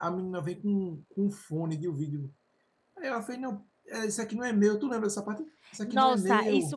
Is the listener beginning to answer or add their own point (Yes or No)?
Yes